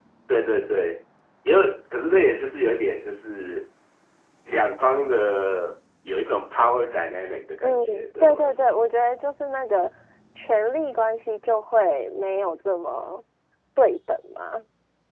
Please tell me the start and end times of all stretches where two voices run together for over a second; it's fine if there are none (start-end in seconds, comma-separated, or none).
7.6-8.8